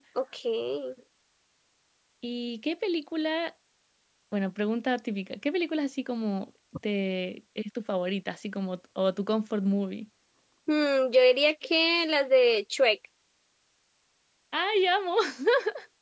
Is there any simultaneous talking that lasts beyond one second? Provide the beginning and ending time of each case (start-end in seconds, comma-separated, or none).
none